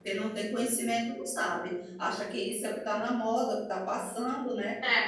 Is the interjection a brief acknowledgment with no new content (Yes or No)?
No